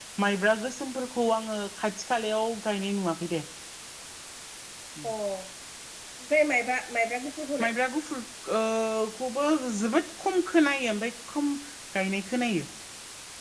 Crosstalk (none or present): none